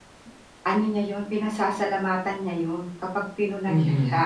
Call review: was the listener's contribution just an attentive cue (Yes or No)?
Yes